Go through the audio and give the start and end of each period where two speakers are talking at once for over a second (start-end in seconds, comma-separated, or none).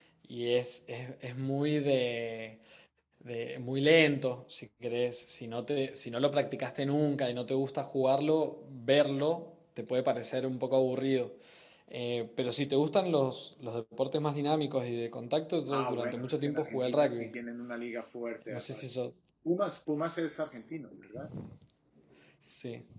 15.7-17.3